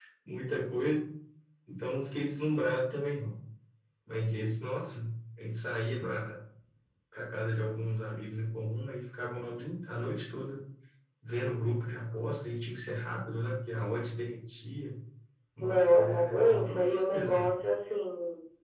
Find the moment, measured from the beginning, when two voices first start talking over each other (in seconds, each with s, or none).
15.6 s